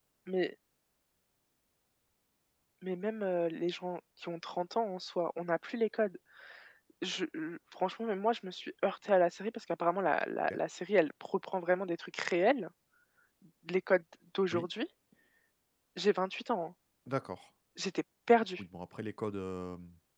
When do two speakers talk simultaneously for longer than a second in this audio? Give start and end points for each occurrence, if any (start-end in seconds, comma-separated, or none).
none